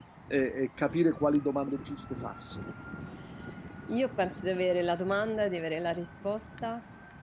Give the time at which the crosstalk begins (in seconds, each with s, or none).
none